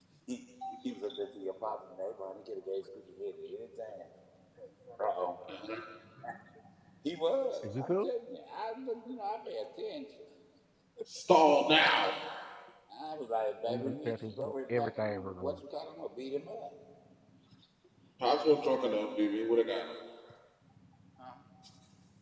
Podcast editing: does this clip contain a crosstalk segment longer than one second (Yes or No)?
Yes